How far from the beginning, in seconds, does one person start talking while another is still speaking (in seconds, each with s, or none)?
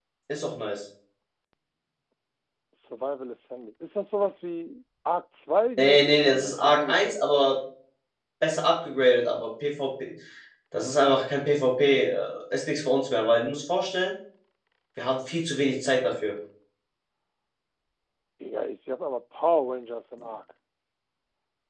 5.8 s